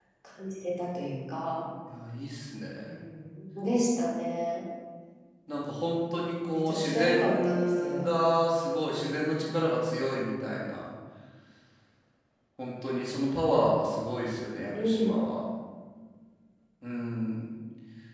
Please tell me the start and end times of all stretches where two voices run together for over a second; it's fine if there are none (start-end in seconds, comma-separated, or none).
6.5-7.8